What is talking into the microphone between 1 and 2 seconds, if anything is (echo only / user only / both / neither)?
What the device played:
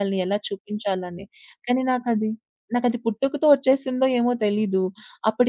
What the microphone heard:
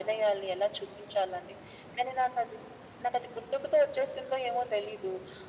echo only